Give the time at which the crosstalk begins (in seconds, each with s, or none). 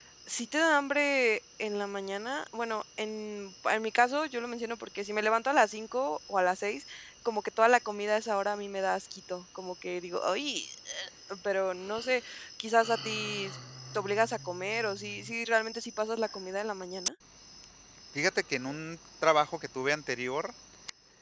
none